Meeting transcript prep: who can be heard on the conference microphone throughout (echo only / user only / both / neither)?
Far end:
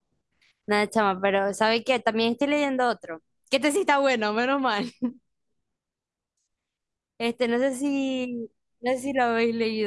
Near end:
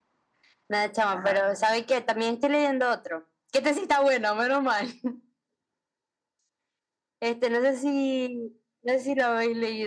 both